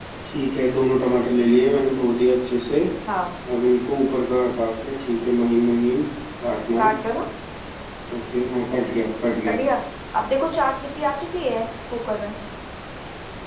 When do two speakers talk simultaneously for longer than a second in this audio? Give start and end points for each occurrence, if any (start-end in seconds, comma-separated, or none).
none